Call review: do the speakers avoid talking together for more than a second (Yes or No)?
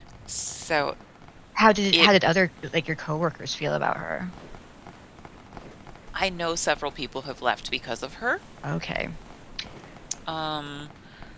Yes